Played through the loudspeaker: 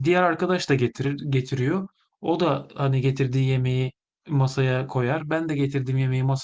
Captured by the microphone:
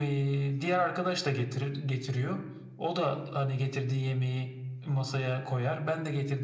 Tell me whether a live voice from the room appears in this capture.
No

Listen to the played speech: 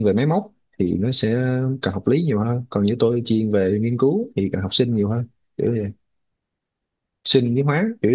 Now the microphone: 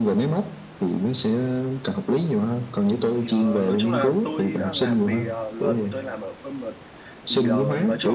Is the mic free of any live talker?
No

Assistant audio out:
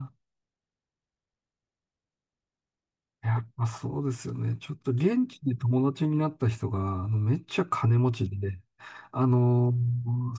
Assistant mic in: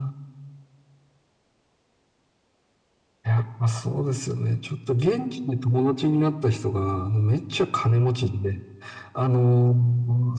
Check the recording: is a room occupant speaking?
No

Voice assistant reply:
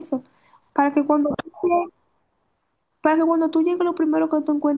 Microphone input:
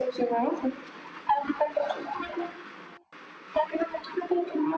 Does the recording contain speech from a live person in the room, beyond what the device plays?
No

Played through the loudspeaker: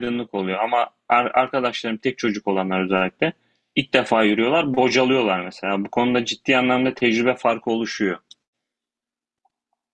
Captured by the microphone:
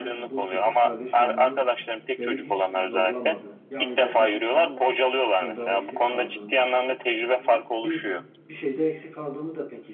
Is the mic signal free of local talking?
No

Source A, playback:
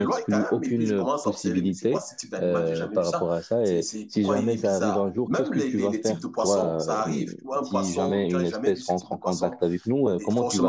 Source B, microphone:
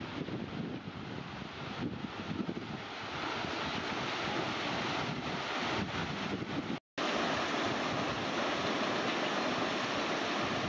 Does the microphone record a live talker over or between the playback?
No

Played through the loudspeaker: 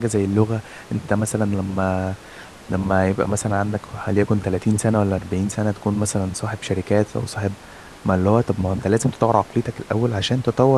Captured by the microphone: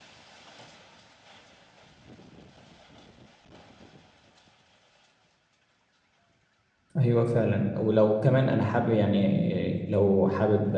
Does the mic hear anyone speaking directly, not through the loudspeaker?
Yes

